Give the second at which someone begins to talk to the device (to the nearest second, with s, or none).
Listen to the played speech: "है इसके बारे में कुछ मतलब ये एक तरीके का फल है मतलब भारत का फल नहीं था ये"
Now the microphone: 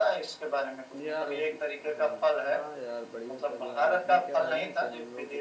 1 s